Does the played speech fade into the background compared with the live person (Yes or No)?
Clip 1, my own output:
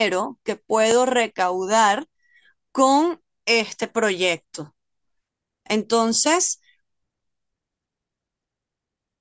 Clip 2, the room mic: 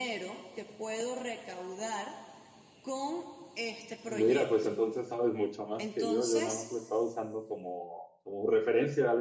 Yes